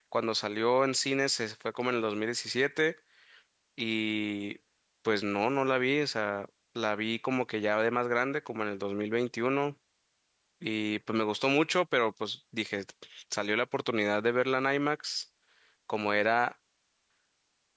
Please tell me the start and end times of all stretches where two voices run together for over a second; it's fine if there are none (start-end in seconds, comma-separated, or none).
none